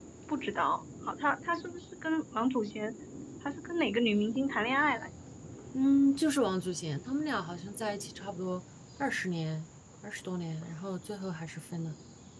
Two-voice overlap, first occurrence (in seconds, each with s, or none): none